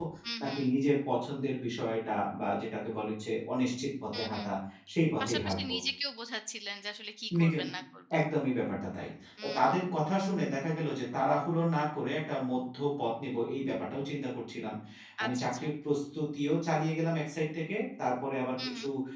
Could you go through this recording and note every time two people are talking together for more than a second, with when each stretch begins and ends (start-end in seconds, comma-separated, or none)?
none